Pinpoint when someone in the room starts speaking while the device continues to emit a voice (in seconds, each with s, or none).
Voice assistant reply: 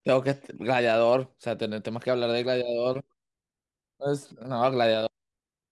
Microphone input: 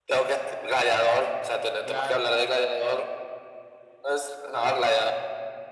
1.8 s